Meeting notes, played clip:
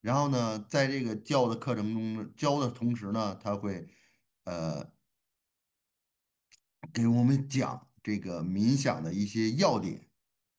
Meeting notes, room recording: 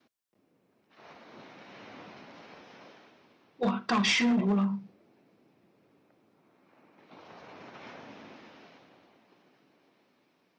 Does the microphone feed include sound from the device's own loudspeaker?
No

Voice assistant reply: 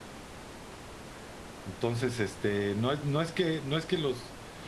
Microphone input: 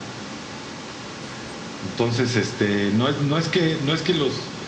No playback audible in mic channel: No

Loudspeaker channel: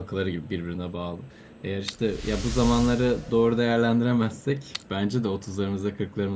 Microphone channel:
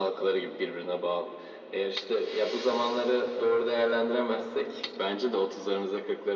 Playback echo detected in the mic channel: Yes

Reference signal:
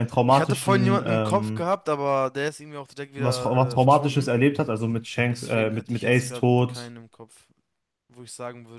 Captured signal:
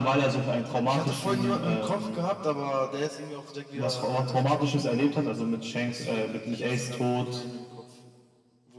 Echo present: Yes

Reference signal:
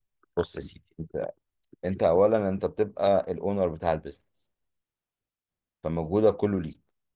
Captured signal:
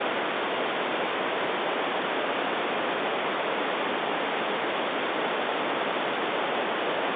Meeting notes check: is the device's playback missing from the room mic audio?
Yes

